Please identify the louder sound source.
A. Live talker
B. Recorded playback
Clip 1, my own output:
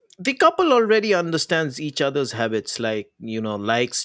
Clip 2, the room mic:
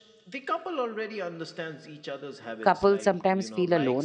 A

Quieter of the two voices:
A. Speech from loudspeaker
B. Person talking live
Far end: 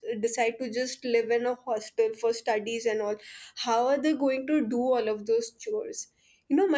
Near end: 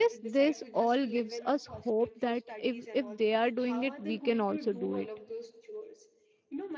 A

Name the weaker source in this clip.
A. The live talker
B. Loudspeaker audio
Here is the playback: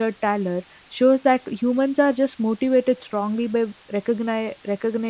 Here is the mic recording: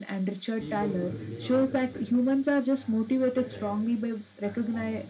A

